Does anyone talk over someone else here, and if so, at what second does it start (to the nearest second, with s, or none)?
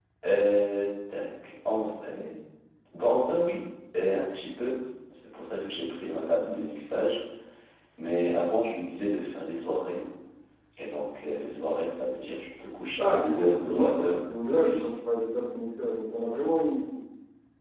13 s